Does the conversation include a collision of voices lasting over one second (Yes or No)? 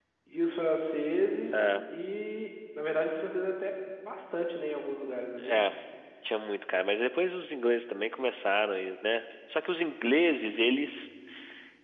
No